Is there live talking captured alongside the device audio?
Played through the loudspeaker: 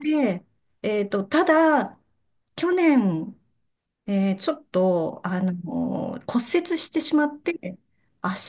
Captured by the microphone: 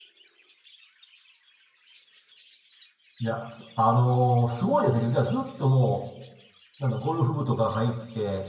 Yes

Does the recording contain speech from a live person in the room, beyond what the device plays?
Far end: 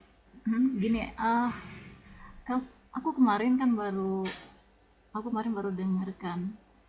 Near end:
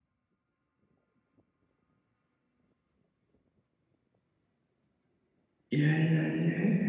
Yes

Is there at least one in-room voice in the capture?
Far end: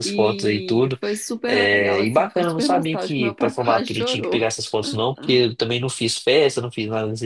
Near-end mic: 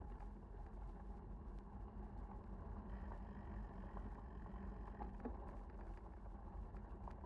No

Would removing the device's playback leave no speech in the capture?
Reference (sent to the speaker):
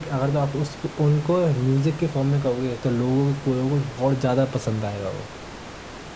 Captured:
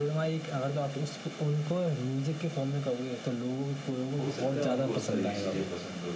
No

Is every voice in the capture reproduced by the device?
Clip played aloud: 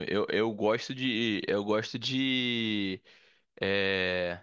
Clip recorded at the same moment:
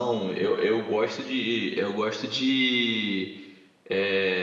Yes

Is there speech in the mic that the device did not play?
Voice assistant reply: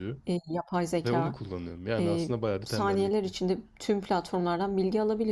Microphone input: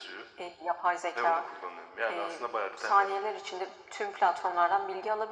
No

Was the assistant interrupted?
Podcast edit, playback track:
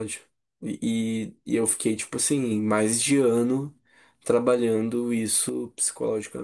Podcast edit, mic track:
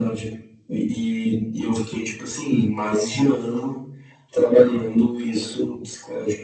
No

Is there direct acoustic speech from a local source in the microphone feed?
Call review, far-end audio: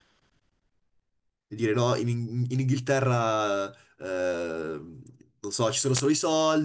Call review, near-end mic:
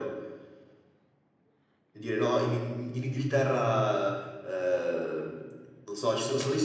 No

